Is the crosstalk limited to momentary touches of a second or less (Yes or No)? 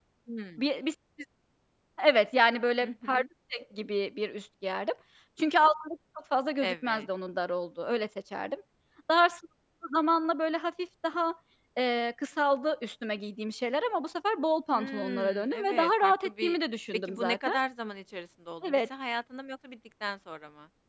No